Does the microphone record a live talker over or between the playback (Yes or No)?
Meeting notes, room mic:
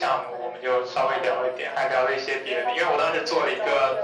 No